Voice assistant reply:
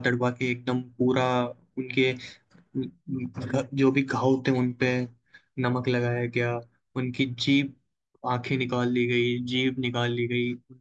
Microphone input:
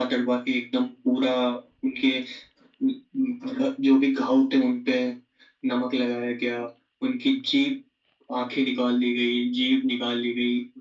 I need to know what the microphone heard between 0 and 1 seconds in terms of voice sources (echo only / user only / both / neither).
echo only